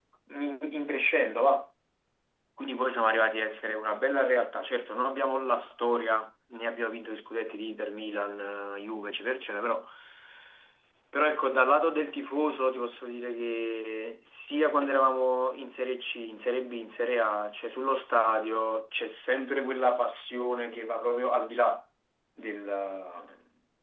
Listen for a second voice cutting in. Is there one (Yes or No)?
No